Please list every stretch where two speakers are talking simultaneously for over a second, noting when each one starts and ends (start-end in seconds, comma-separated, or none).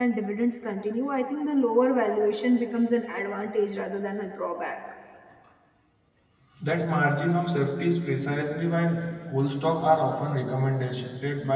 none